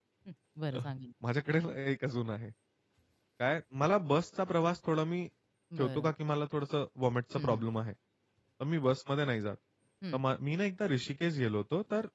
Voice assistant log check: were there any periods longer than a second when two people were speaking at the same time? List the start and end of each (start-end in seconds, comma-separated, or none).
none